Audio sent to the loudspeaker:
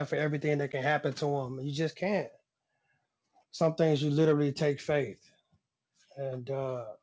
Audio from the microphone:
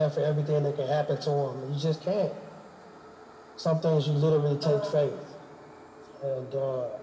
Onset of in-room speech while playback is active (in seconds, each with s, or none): 4.6 s